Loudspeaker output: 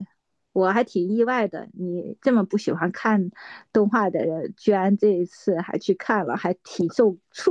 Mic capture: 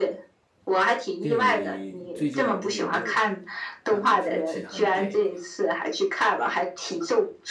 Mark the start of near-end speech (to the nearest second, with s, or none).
1 s